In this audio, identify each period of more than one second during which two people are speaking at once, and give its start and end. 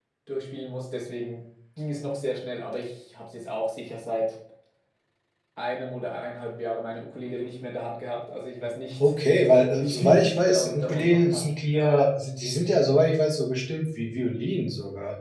9.8-11.5

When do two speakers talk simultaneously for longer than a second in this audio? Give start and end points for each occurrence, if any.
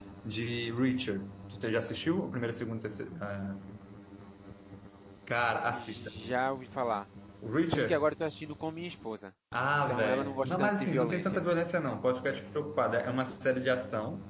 9.9-11.5

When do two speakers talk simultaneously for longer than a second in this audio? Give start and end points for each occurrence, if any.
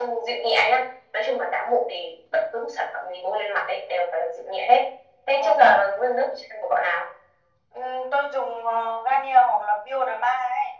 none

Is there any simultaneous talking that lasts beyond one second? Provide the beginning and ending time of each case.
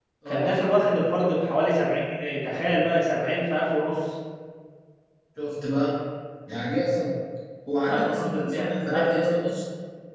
7.9-9.4

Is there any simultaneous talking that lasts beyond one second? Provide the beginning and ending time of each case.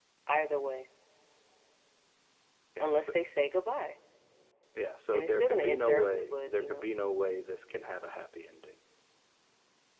5.1-6.9

